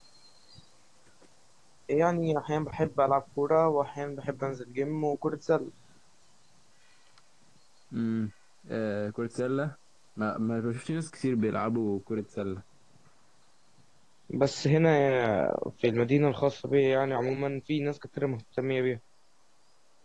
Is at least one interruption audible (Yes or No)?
No